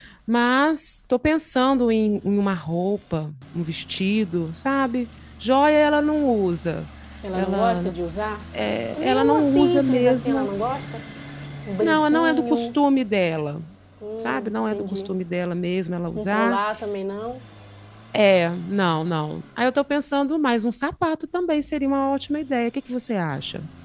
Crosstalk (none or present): present